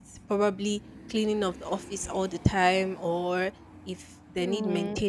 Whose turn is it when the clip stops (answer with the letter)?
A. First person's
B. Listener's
A